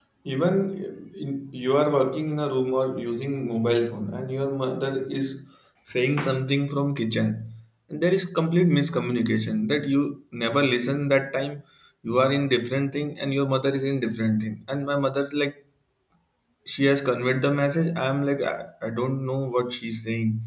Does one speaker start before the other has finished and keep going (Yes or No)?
No